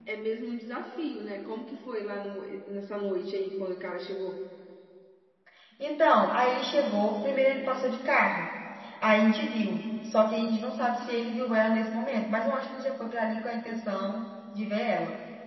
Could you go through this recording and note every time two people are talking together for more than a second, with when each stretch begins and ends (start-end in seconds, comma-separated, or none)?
none